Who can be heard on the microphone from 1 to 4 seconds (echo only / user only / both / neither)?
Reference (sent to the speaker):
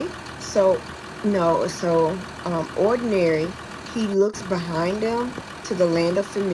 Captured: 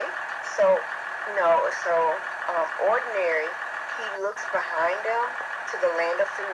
echo only